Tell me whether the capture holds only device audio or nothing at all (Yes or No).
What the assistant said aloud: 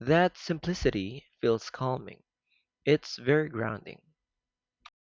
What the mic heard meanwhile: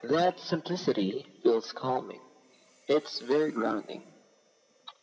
Yes